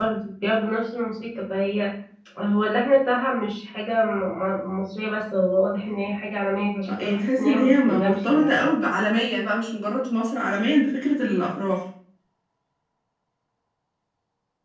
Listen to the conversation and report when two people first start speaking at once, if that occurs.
6.9 s

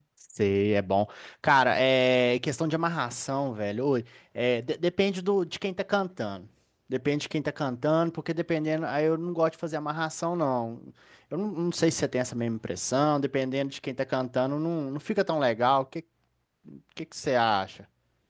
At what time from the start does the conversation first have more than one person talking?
none

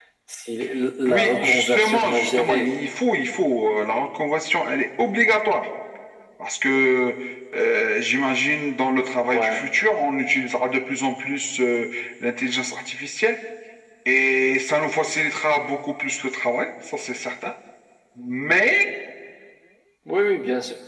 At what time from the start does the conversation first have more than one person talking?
1.1 s

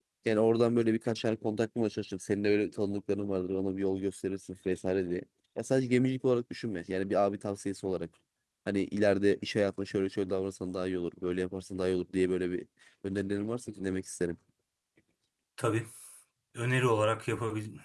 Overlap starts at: none

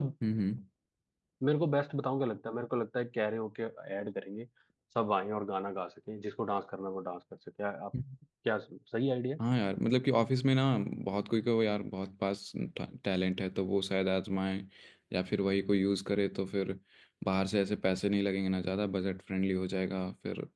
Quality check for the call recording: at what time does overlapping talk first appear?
none

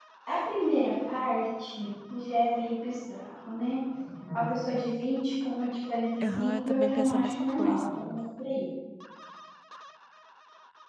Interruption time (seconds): 6.2 s

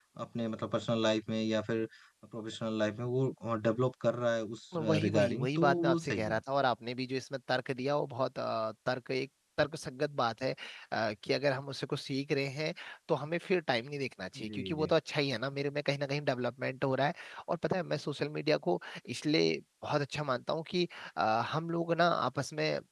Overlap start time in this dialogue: 4.8 s

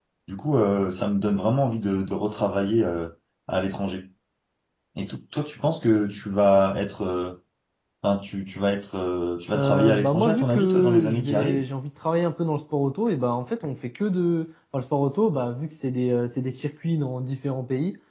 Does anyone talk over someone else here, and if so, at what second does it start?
9.5 s

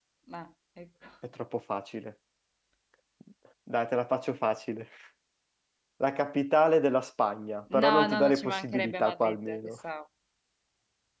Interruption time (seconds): 7.7 s

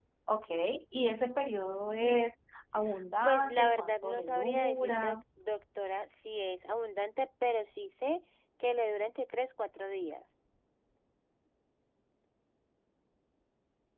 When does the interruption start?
3.2 s

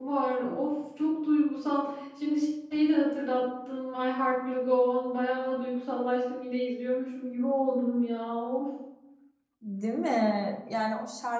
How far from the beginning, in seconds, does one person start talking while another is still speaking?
none

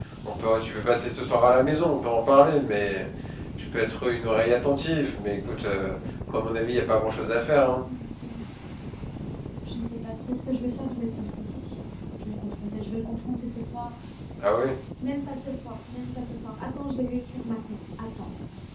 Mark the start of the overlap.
none

